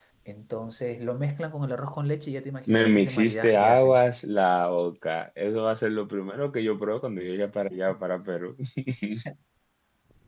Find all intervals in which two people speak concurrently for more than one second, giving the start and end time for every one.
2.7-4.0

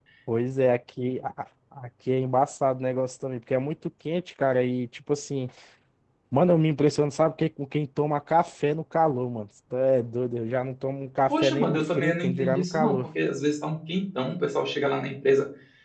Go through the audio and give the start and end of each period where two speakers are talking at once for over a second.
11.3-13.0

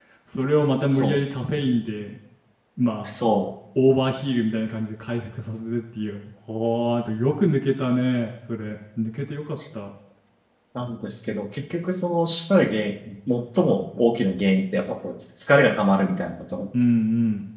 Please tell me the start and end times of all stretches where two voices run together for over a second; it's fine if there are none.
none

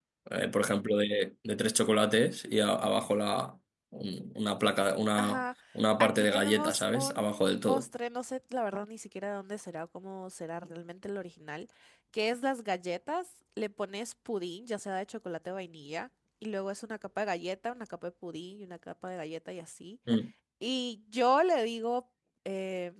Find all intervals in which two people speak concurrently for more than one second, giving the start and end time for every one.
6.0-7.8

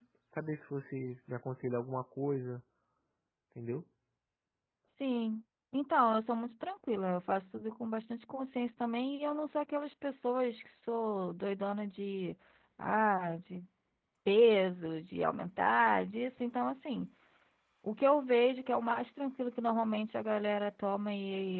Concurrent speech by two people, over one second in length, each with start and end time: none

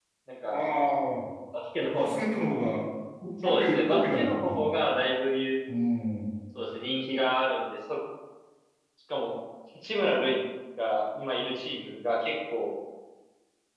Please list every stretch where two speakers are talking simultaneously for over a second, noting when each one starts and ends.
3.4-4.7

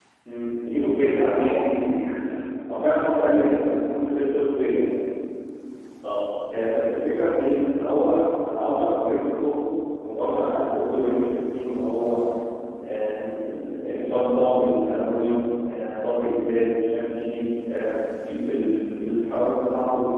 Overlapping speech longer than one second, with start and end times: 0.7-2.0

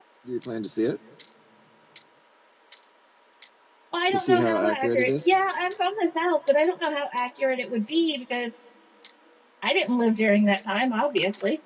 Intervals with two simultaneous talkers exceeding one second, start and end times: 4.1-5.3

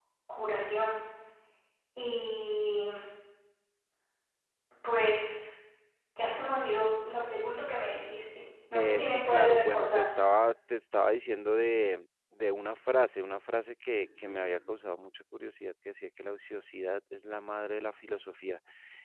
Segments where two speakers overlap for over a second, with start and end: 8.7-10.0

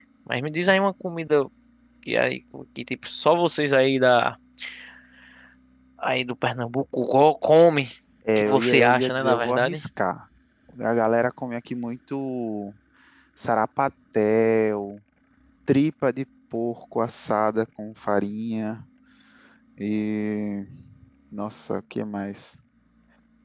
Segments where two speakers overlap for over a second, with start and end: 8.4-9.8

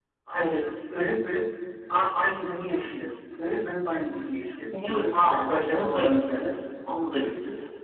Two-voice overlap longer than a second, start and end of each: 5.3-6.5

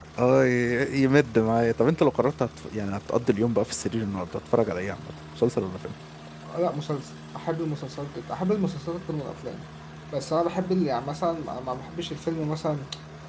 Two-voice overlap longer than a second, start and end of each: none

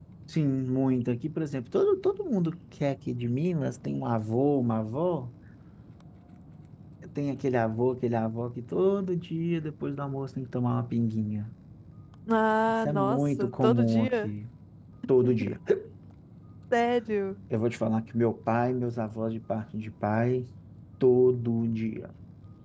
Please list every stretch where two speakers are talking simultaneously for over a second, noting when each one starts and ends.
12.8-14.3

